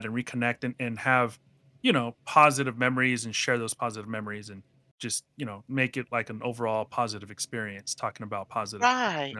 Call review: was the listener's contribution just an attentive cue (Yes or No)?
No